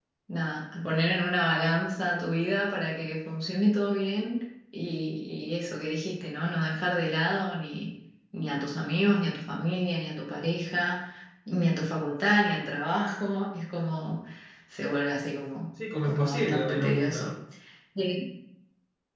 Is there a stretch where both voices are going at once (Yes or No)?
Yes